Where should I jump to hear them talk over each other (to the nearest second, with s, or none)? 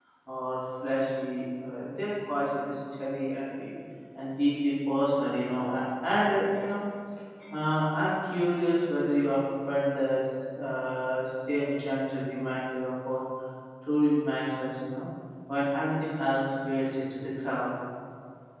none